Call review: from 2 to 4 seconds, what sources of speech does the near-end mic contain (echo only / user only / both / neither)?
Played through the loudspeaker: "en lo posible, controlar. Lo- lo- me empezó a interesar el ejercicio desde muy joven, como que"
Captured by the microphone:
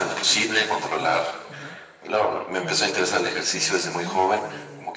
both